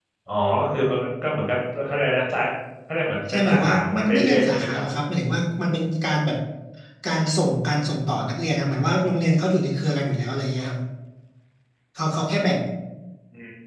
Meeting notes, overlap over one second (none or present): present